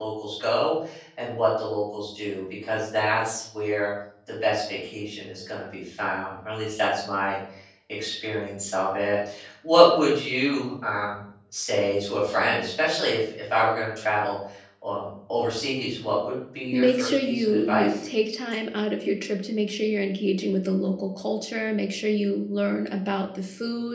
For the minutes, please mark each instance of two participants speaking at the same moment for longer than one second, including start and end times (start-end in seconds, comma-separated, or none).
16.7-18.0